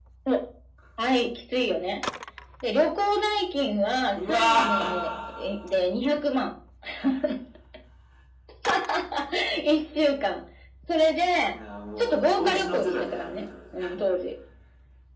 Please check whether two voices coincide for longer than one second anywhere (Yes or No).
Yes